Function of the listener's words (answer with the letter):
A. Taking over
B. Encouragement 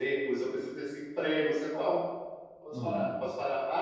B